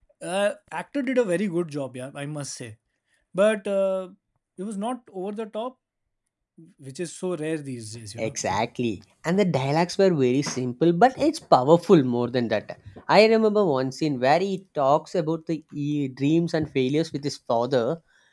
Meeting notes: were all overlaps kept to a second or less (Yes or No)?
Yes